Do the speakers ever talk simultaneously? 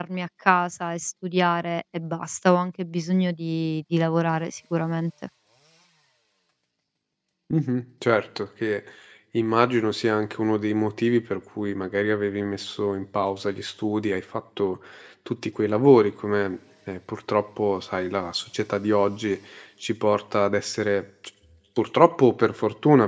No

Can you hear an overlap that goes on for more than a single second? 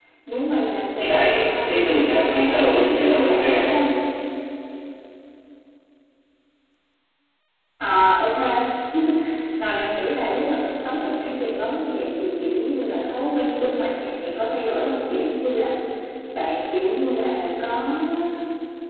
Yes, from 1.0 s

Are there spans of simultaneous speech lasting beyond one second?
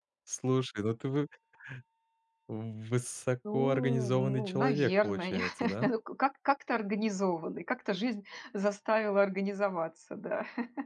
Yes, from 3.4 s

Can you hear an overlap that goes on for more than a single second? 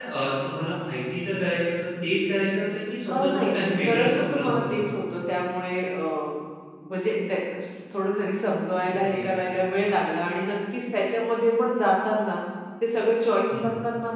Yes, from 3.1 s

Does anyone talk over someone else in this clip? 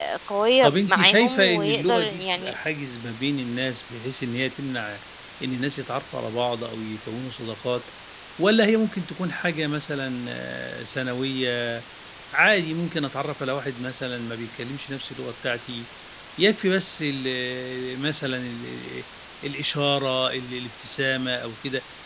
Yes, from 0.6 s

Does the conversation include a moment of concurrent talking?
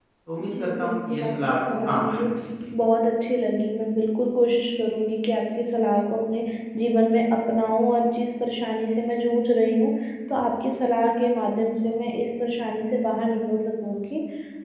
Yes, from 0.5 s

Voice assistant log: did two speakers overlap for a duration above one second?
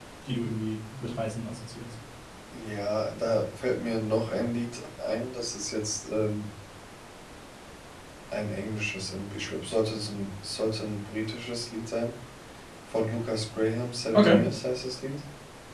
No

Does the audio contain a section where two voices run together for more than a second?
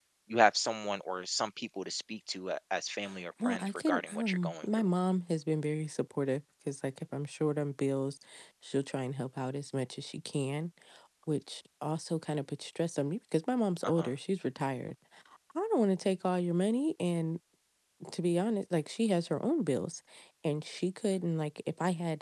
Yes, from 3.4 s

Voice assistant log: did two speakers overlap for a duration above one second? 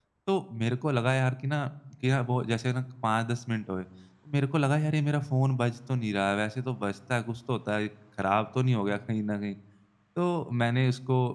No

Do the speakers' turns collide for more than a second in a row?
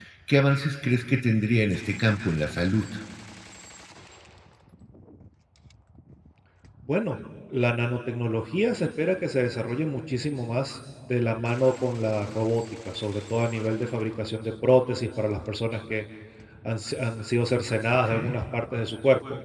No

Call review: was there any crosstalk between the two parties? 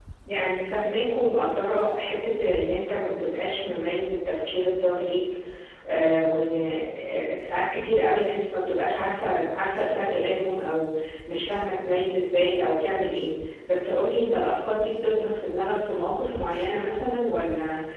No

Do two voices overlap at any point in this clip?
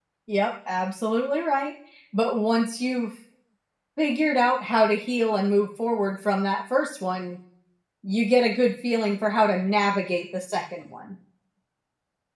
No

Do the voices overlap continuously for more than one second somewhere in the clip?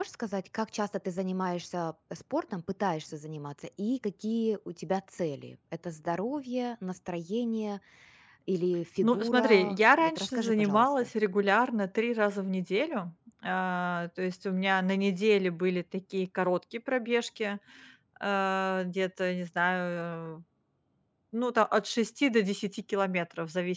Yes, from 9.0 s

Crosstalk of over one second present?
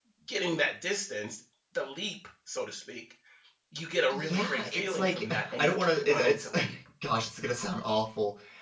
Yes, from 4.1 s

